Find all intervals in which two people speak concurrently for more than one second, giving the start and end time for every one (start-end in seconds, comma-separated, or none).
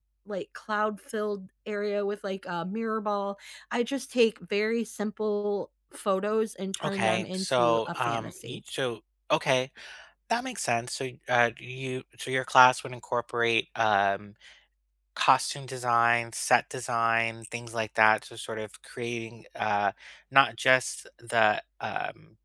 6.8-8.6